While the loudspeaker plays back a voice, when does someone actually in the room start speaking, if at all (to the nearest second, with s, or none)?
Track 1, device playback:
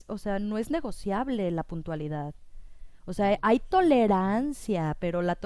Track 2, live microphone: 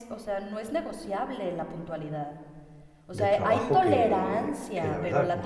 3 s